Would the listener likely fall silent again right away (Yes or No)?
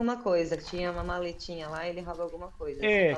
No